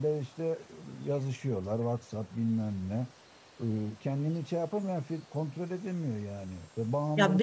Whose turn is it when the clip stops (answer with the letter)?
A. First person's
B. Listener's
B